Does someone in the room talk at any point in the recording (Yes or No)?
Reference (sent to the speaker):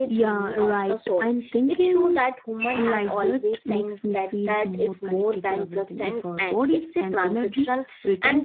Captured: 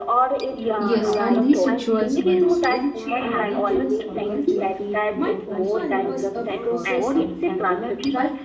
Yes